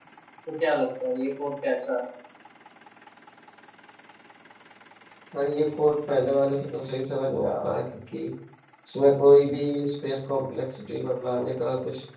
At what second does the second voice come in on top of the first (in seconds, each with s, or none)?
none